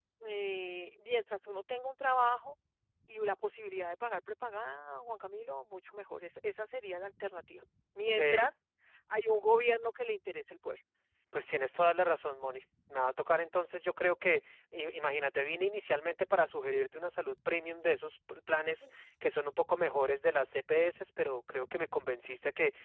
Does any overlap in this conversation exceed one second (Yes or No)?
No